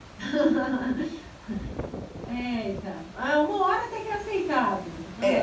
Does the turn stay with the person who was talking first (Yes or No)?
No